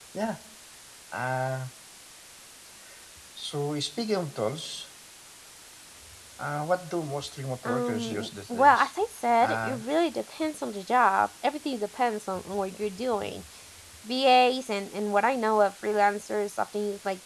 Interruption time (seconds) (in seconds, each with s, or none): 7.6 s